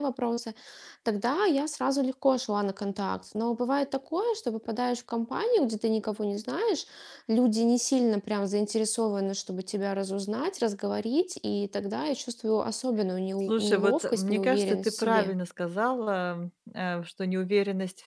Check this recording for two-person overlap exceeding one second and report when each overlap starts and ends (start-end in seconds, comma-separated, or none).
13.5-15.3